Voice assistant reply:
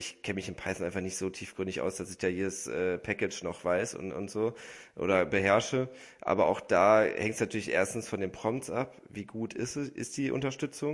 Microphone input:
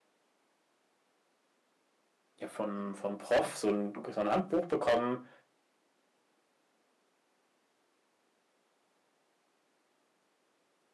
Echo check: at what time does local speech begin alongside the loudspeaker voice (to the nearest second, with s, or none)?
2 s